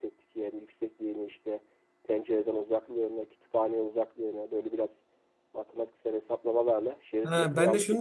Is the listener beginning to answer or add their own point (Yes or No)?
Yes